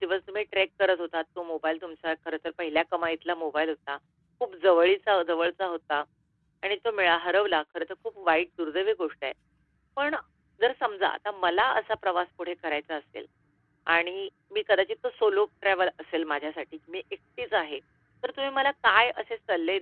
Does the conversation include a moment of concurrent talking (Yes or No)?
No